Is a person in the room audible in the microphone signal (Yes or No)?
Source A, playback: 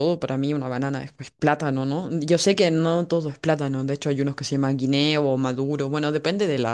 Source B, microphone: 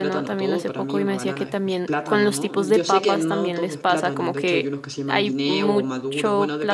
Yes